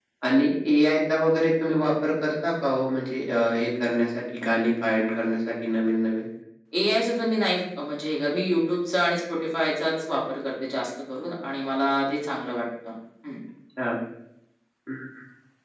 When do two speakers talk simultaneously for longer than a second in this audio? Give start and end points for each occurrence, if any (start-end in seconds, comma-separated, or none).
none